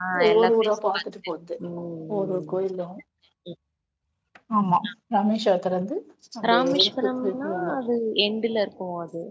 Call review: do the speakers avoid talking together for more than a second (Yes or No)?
No